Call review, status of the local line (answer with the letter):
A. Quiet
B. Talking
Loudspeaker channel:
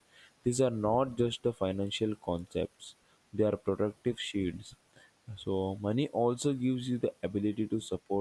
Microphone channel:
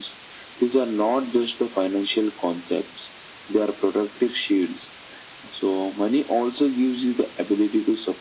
A